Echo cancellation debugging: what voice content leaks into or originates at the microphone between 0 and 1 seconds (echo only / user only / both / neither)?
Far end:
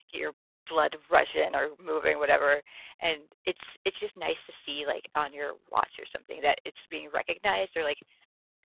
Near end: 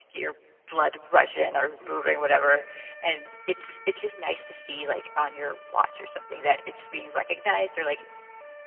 echo only